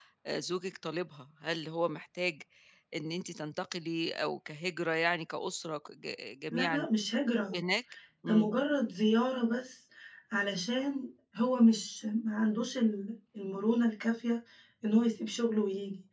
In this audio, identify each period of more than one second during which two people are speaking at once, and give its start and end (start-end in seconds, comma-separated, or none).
none